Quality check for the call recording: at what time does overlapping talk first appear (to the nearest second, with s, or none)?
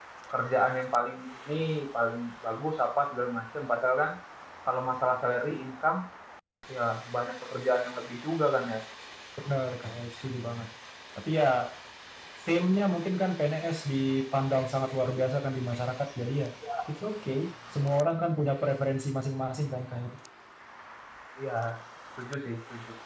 none